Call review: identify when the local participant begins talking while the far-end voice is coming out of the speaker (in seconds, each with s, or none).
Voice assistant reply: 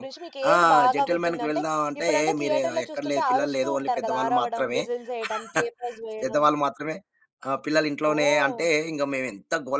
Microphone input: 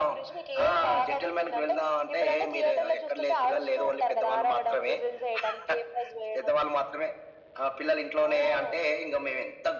none